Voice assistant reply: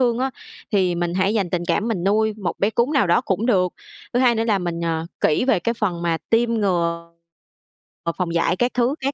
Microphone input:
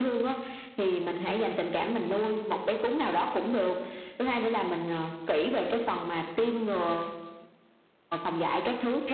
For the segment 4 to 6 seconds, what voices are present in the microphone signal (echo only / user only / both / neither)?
echo only